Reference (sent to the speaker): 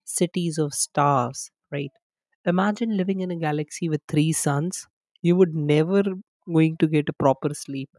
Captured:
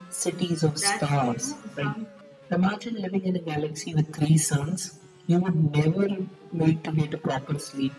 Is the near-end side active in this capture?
Yes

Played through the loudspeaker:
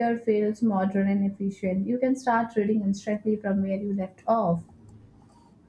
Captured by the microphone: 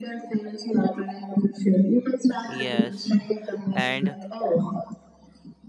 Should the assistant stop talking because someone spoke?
Yes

